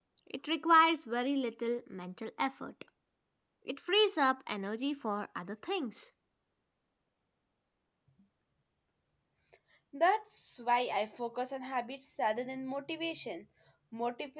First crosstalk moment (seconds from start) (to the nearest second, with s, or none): none